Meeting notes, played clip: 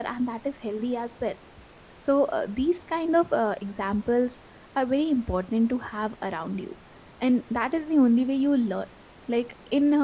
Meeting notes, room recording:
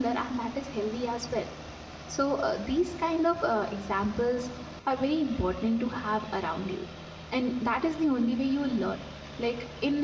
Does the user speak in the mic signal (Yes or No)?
No